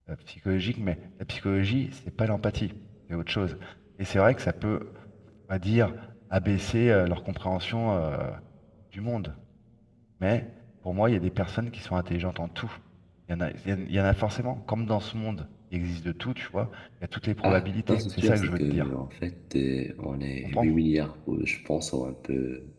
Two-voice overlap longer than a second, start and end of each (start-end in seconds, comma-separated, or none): 17.4-18.9